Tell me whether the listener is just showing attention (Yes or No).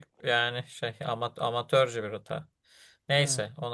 Yes